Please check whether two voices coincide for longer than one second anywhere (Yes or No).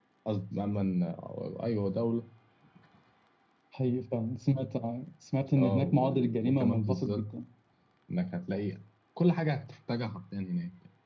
Yes